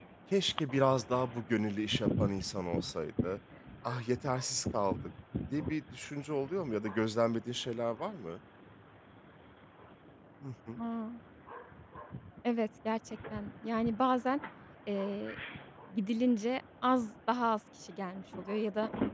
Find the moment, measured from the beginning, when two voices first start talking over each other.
none

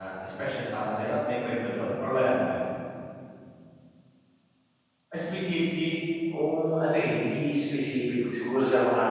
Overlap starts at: none

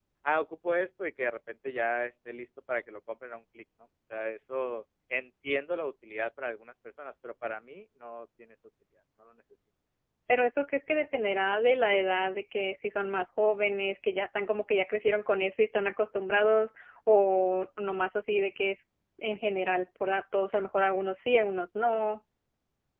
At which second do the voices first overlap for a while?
none

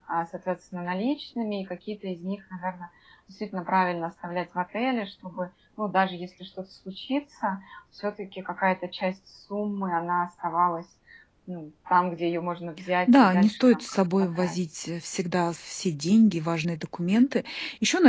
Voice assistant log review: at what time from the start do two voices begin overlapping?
13.1 s

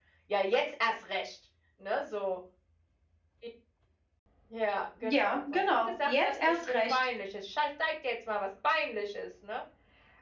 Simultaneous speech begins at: 5.1 s

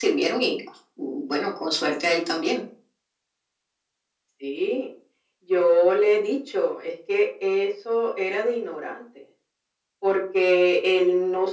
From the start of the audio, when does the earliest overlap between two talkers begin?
none

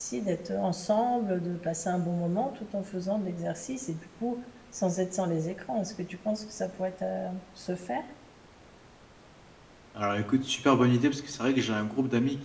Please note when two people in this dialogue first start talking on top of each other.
none

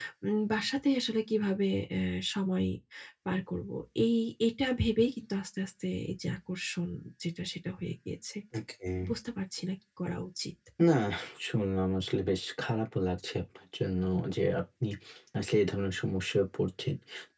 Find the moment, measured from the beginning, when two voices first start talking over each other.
none

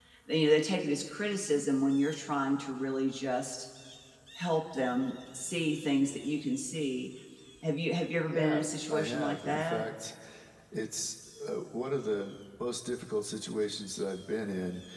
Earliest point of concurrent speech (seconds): 8.2 s

